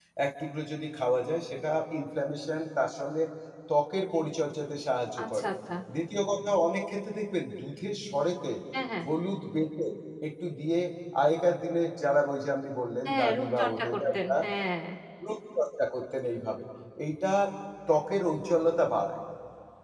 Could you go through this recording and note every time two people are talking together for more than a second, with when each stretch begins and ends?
13.1-14.4

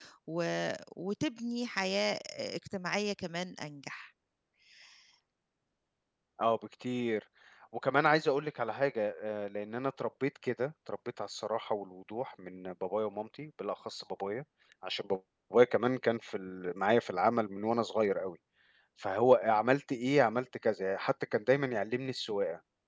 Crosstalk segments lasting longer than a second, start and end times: none

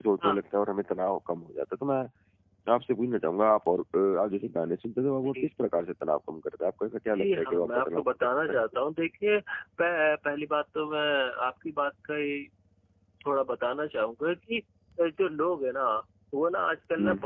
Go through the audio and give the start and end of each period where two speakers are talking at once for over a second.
7.1-8.6

